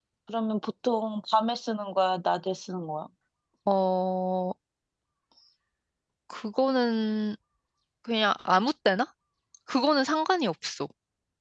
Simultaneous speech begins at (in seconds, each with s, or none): none